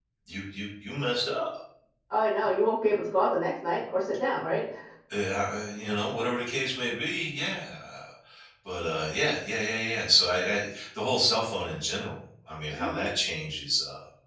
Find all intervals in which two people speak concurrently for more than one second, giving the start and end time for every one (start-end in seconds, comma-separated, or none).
none